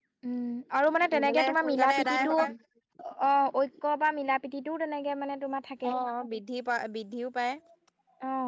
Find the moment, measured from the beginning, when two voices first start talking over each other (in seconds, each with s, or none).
1.1 s